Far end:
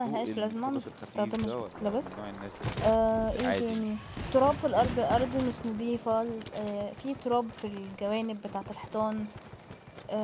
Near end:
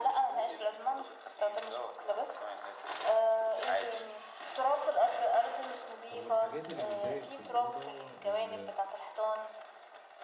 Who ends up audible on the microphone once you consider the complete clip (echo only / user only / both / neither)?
both